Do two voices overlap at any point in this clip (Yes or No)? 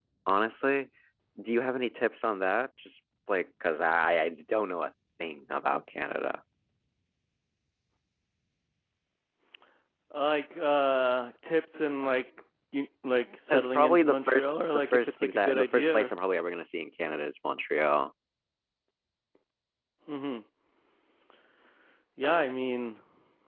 Yes